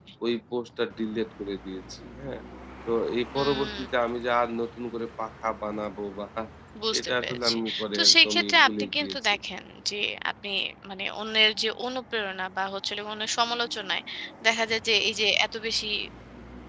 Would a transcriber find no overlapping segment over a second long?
No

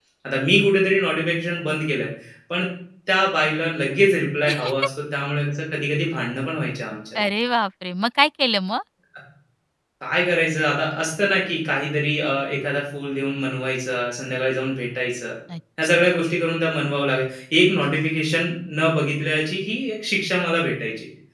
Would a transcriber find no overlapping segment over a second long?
Yes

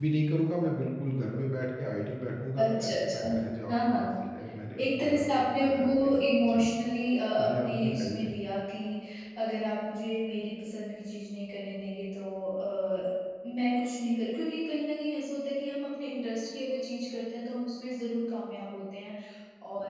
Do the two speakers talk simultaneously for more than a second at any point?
Yes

